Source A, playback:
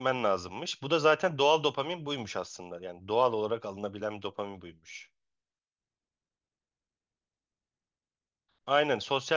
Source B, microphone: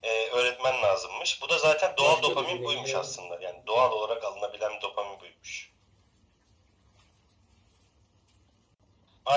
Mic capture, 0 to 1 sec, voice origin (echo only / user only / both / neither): echo only